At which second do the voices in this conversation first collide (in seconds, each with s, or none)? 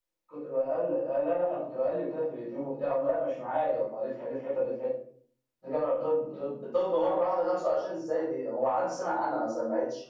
none